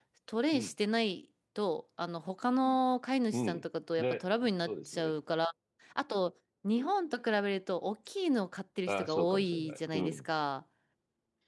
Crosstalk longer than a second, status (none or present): present